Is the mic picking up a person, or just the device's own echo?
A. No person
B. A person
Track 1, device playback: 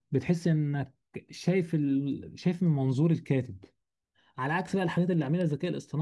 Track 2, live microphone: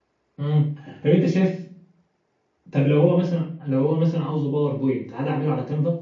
B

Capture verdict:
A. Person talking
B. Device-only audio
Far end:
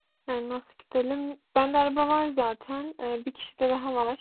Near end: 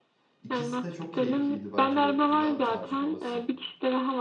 A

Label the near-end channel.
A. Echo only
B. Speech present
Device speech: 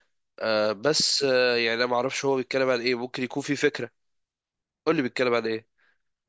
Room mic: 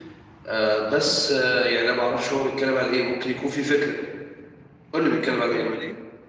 B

